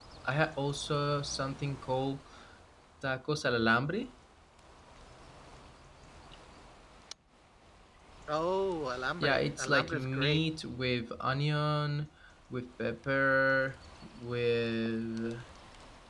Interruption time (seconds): 9.2 s

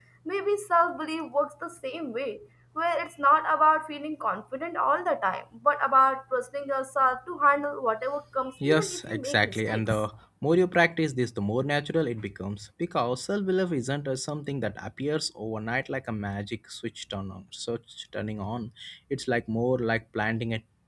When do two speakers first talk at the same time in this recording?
8.6 s

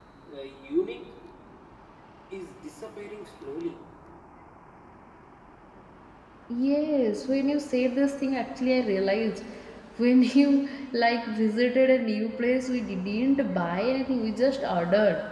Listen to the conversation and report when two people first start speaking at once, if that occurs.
none

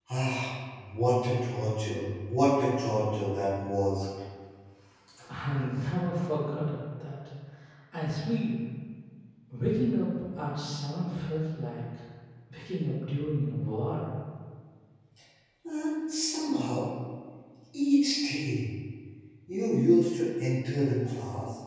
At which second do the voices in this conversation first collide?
none

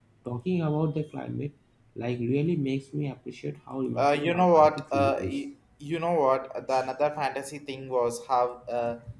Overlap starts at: 4.0 s

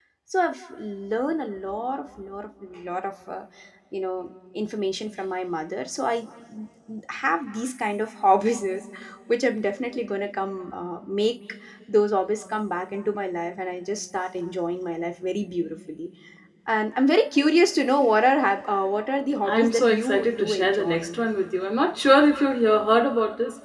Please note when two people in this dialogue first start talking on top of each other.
19.4 s

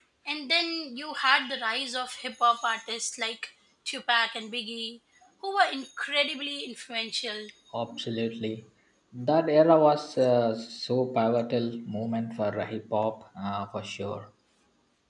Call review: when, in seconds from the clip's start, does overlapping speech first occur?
none

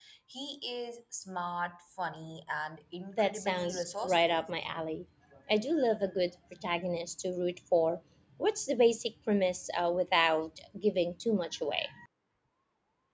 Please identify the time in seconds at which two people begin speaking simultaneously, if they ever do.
3.2 s

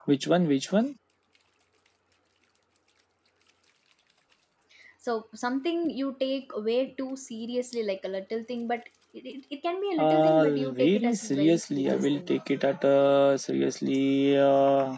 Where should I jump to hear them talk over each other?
10.0 s

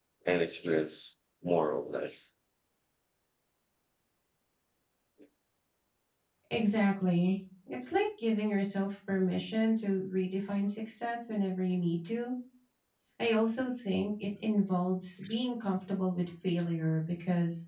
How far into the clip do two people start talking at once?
none

